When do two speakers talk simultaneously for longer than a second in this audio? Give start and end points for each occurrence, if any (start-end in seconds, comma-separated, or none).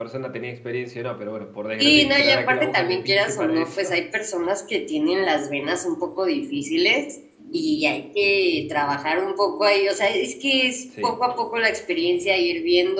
1.8-3.9